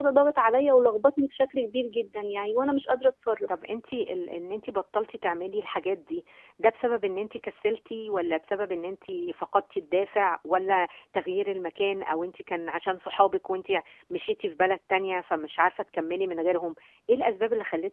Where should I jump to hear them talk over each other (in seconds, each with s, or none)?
none